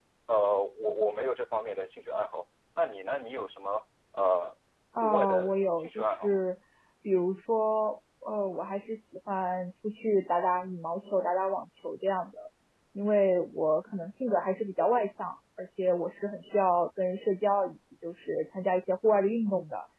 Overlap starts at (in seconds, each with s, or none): 5.0 s